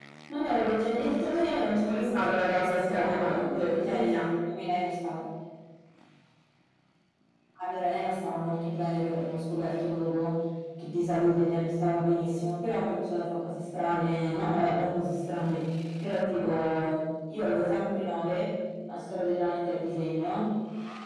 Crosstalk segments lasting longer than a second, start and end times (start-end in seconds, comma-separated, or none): 1.8-4.3